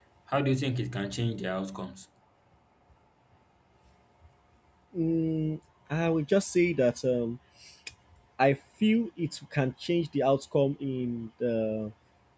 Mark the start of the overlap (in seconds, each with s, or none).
none